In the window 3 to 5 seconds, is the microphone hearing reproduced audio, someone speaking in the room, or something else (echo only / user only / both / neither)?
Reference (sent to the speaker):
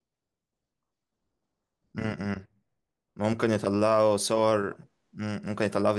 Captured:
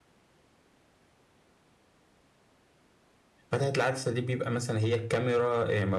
user only